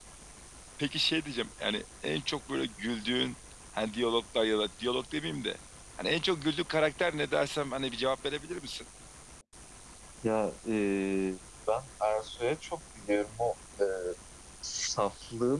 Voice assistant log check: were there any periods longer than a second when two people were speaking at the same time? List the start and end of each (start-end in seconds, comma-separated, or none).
none